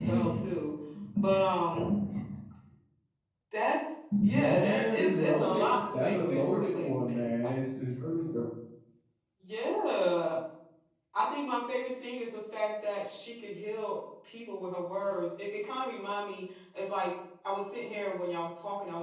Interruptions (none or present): present